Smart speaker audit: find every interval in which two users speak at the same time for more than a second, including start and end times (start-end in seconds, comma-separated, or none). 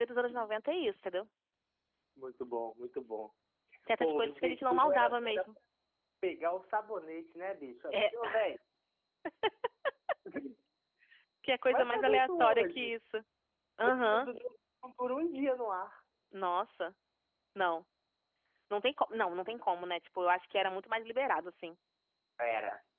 4.0-5.5, 11.7-12.9